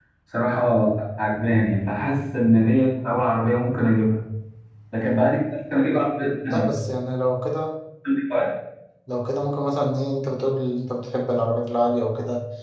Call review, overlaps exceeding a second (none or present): none